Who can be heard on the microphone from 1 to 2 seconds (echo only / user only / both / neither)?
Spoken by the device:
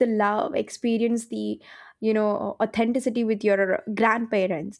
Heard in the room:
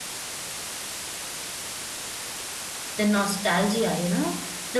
neither